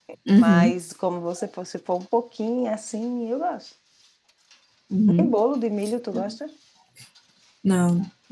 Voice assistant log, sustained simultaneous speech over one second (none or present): none